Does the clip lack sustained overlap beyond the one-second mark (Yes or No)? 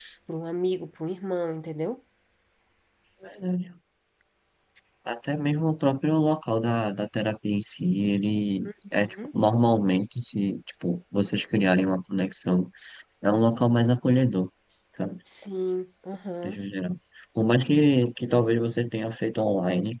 Yes